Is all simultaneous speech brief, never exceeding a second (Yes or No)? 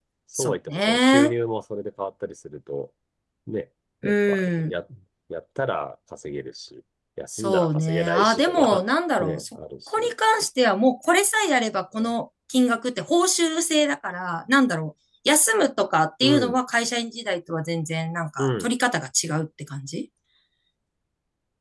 No